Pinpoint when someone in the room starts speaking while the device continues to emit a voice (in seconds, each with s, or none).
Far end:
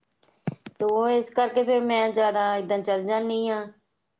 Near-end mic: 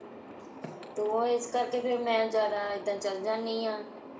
none